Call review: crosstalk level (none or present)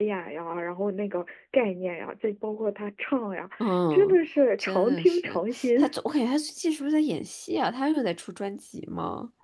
present